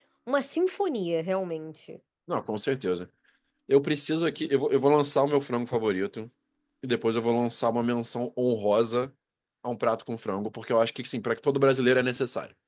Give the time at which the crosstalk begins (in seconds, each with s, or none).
none